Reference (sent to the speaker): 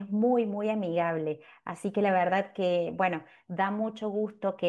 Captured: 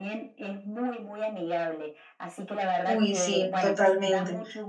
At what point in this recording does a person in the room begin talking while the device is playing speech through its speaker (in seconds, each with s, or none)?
2.9 s